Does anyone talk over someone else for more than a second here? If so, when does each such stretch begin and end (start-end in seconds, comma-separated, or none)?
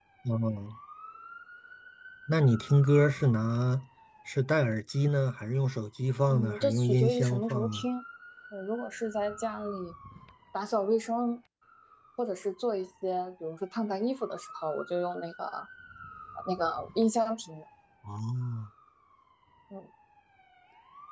6.3-7.8